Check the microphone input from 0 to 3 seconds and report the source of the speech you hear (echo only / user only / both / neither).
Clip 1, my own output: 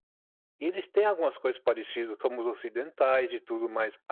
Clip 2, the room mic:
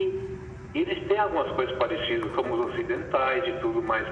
echo only